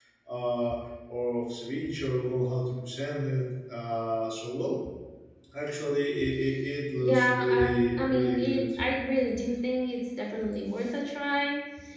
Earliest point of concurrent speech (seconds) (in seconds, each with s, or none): 7.0 s